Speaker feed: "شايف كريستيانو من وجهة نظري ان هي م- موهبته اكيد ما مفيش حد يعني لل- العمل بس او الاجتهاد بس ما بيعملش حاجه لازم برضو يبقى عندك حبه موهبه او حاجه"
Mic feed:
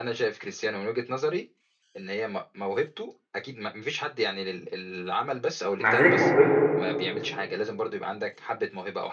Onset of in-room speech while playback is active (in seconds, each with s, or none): 5.8 s